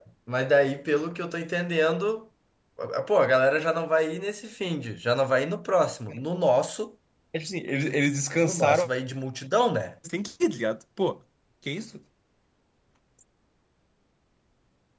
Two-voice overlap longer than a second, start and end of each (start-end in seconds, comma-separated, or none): none